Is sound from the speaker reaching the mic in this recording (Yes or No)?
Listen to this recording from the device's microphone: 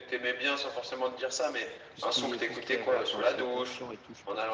Yes